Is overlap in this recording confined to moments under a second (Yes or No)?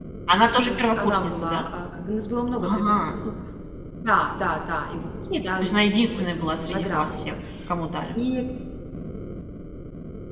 No